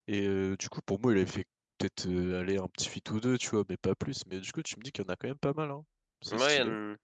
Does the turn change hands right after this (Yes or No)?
Yes